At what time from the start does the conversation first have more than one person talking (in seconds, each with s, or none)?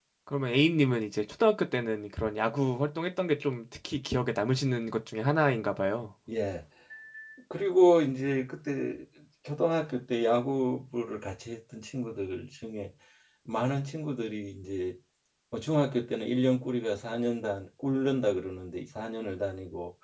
none